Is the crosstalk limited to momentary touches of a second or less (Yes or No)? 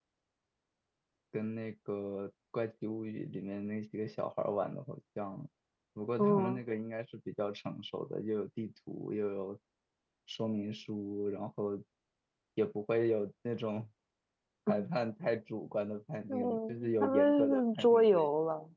No